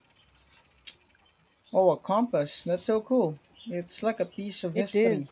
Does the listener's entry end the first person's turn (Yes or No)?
Yes